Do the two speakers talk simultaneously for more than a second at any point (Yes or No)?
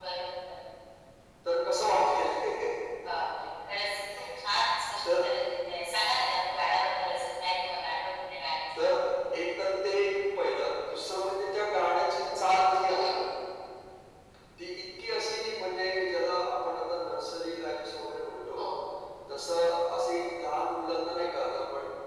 No